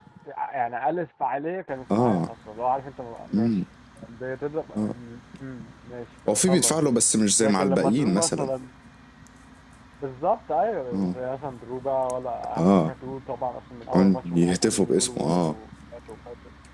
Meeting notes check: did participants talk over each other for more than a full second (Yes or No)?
Yes